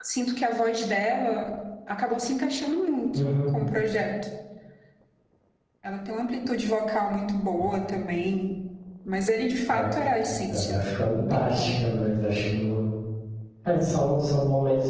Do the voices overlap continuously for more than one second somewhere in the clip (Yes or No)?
Yes